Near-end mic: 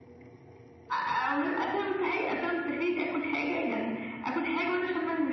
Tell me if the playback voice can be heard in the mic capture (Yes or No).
Yes